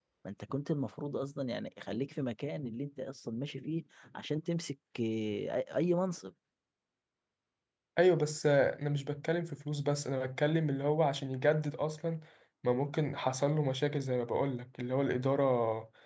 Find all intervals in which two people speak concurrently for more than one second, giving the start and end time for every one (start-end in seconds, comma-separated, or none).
none